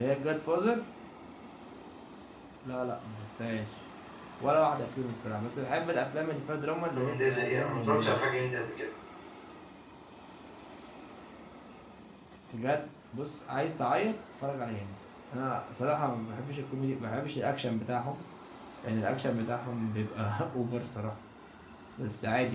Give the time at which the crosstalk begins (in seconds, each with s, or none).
6.9 s